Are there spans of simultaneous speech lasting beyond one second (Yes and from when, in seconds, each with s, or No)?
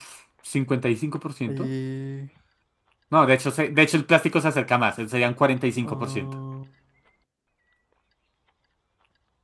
No